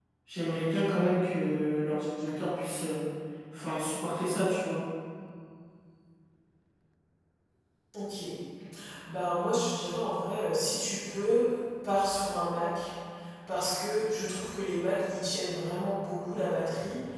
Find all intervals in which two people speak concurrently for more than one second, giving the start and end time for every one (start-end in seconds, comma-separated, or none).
none